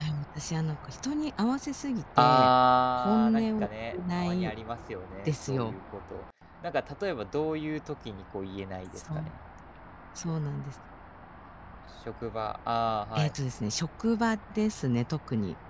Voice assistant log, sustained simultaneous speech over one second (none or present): present